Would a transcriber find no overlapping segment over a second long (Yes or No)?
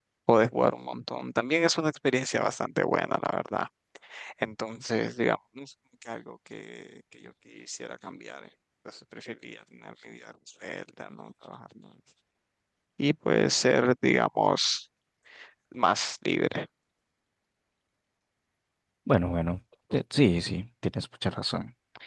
Yes